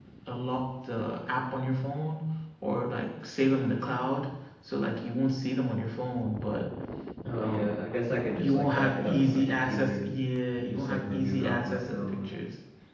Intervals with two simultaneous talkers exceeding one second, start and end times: 8.2-10.1, 10.6-12.3

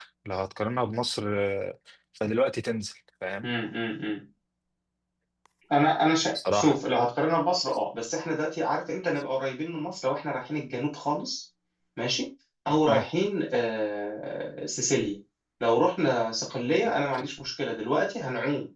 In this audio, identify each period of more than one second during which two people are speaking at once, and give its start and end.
none

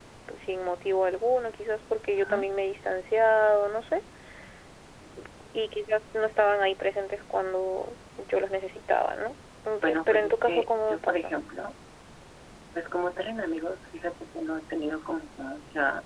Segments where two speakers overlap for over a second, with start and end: 9.8-11.4

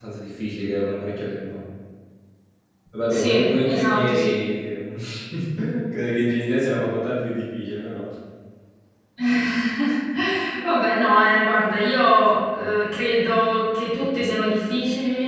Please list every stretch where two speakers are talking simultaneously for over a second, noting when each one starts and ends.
3.1-4.3

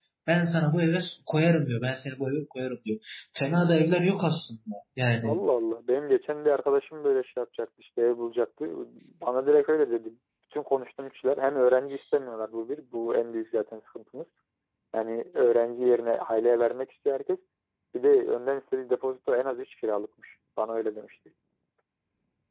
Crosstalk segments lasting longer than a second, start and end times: none

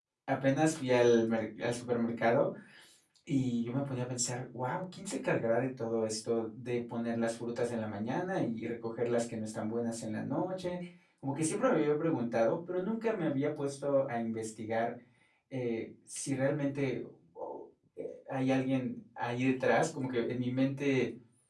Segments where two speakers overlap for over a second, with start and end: none

